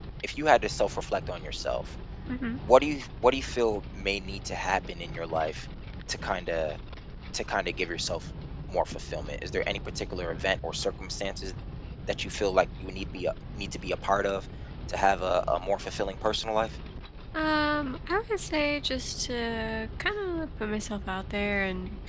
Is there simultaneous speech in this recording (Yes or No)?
No